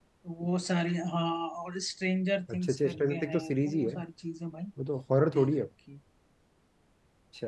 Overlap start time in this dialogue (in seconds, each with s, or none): 2.5 s